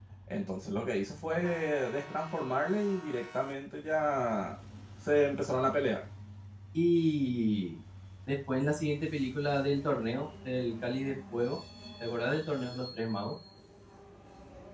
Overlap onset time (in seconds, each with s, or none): none